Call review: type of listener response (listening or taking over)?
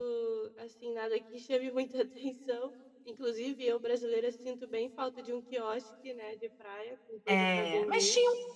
taking over